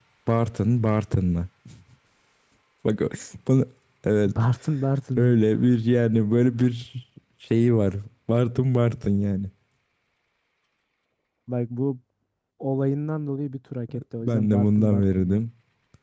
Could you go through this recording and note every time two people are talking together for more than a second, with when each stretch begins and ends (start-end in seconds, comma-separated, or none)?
14.2-15.4